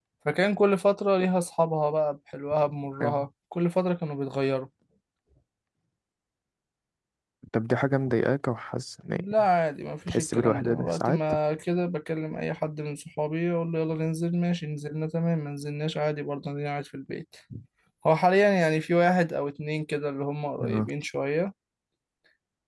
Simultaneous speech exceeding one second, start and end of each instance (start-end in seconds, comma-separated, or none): 10.1-11.3